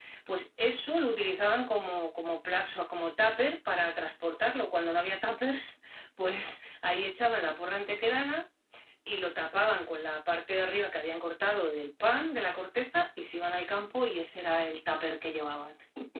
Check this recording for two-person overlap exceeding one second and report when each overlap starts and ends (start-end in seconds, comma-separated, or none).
none